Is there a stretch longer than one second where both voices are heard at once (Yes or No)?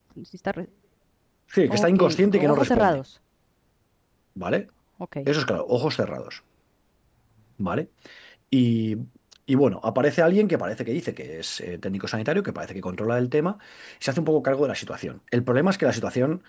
Yes